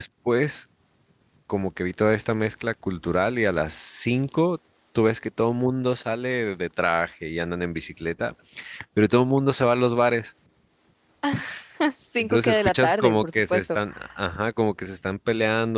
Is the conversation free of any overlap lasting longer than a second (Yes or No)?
No